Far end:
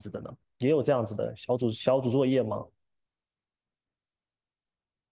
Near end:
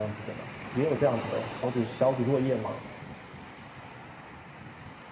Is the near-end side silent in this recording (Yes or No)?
Yes